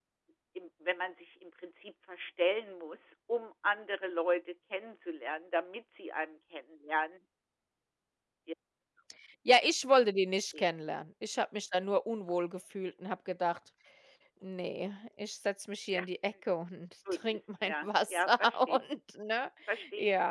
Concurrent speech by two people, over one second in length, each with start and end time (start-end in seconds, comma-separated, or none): 17.1-18.8